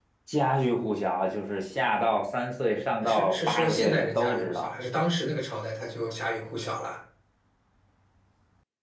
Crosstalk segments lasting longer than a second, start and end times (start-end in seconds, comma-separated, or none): 3.0-4.7